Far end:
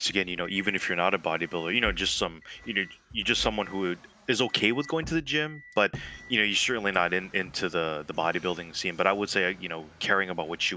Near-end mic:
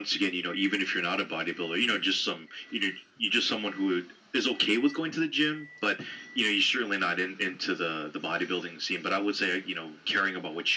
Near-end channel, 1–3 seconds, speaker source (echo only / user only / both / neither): echo only